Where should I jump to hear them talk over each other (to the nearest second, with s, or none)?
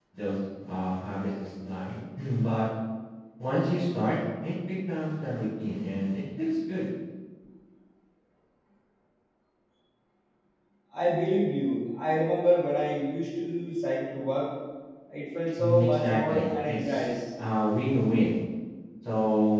16 s